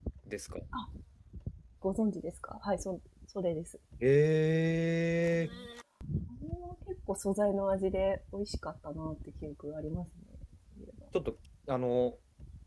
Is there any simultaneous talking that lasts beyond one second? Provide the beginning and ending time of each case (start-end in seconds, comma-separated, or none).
none